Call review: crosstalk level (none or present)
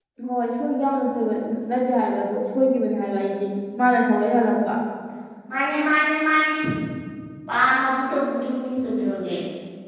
none